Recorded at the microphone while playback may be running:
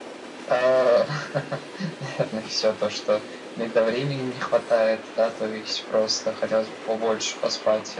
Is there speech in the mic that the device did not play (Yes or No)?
No